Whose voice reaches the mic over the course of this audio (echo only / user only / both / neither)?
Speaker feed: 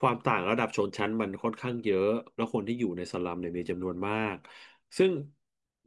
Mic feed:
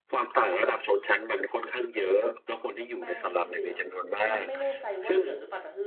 both